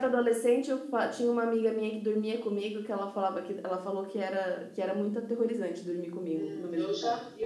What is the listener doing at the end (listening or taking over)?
taking over